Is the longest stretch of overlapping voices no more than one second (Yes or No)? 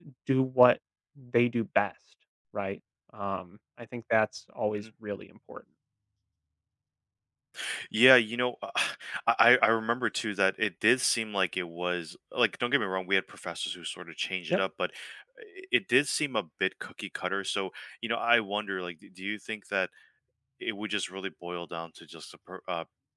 Yes